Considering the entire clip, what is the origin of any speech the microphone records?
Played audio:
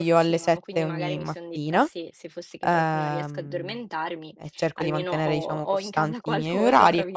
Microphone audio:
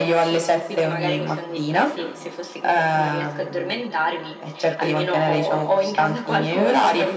echo only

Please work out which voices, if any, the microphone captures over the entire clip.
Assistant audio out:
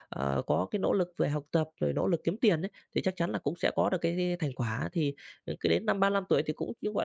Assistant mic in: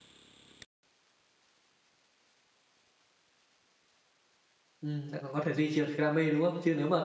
user only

